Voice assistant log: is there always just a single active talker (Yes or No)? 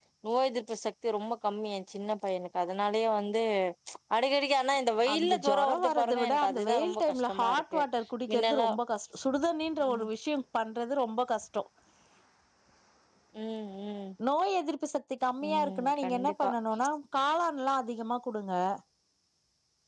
No